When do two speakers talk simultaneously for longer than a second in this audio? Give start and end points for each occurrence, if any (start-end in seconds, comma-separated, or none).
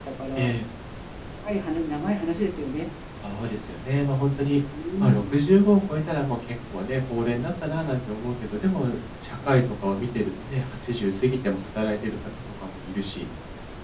none